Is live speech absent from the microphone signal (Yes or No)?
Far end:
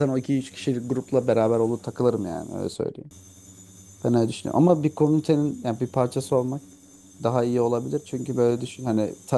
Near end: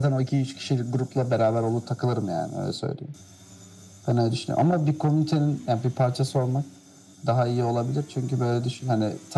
Yes